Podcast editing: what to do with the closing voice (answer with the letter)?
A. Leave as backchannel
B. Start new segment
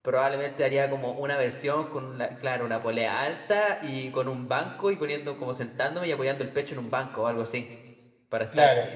A